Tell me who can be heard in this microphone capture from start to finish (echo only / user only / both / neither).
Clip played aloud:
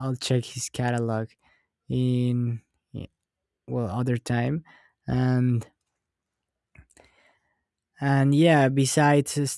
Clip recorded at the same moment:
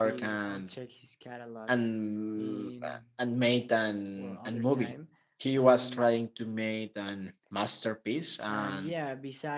both